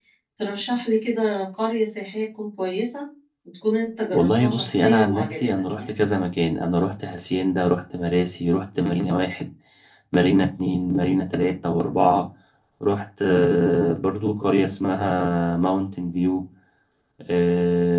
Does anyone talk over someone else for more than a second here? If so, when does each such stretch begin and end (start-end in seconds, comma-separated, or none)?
4.1-5.9